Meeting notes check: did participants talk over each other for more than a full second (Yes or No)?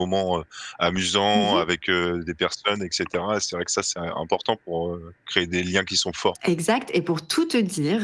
No